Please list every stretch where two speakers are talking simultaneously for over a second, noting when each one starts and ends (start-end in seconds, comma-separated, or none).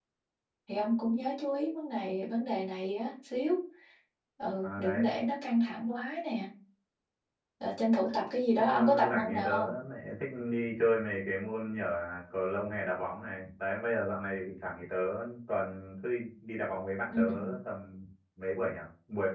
8.5-9.8